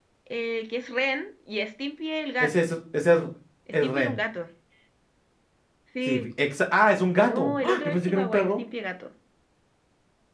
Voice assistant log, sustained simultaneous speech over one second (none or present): present